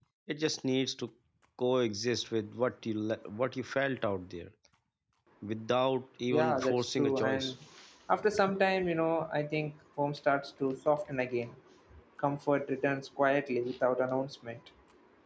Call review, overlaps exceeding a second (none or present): present